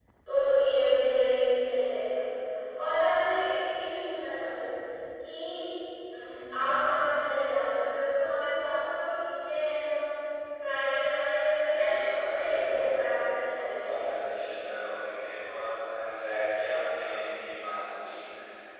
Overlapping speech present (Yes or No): Yes